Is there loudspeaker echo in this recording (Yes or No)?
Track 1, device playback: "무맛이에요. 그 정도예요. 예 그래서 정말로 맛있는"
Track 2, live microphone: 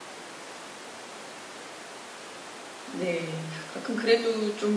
No